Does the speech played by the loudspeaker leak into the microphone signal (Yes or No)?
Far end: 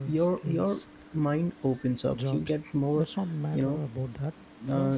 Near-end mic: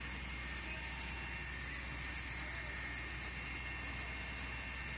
No